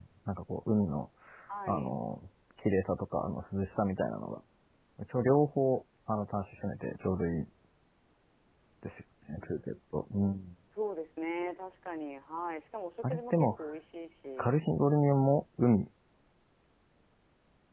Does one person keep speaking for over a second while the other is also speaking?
No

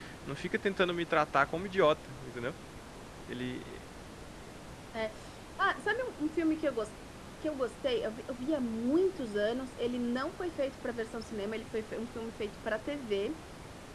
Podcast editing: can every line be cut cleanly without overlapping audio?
Yes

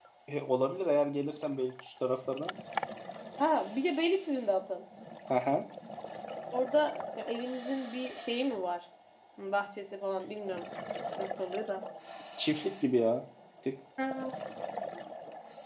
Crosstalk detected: No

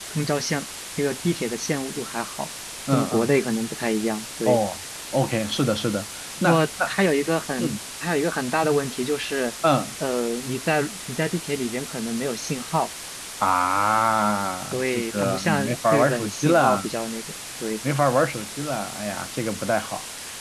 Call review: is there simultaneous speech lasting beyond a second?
Yes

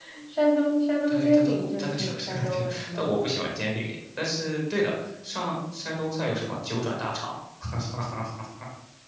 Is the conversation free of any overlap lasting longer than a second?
No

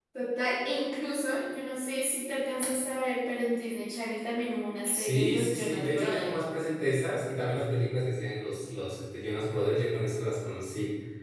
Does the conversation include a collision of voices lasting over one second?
Yes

